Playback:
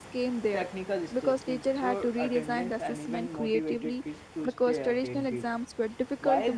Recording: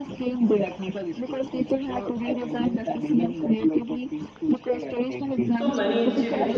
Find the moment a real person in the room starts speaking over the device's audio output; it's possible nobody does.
5.5 s

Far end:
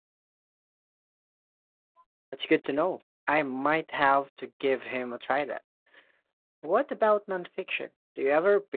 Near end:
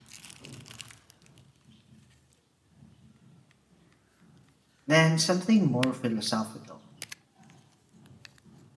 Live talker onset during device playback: 4.9 s

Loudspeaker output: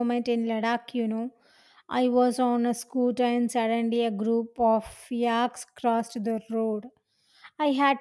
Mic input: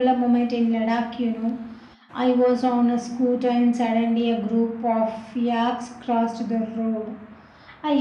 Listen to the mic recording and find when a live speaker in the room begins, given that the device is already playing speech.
none

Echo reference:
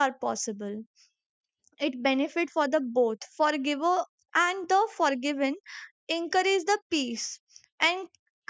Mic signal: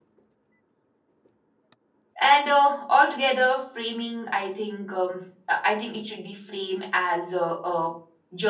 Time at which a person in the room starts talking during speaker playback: 2.2 s

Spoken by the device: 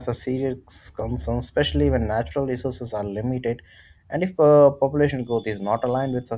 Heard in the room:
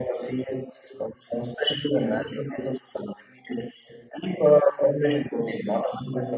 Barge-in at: none

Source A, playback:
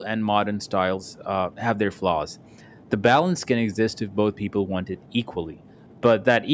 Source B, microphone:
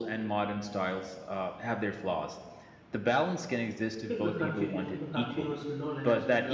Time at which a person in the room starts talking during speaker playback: 4.0 s

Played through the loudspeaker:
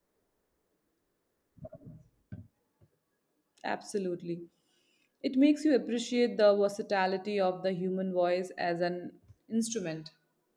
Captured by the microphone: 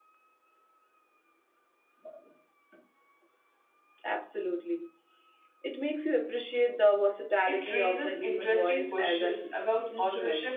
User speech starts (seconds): 7.4 s

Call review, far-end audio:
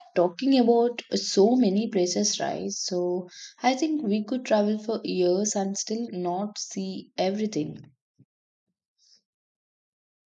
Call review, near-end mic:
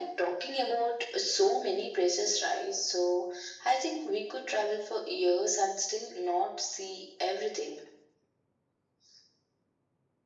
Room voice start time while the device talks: none

